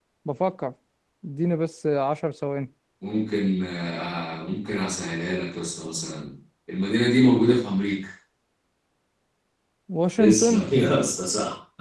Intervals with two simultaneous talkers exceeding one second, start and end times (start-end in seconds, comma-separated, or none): none